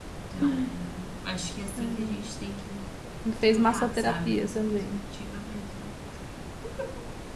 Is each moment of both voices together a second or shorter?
No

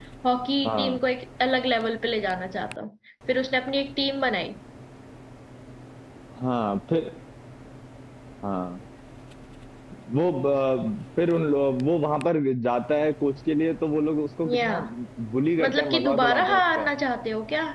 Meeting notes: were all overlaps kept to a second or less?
No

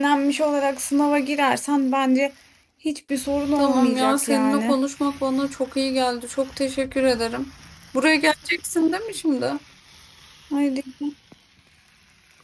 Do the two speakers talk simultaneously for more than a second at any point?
Yes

